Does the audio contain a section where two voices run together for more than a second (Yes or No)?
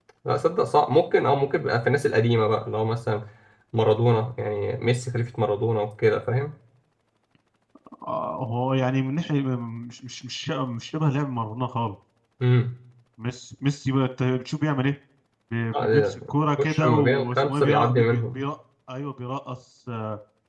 Yes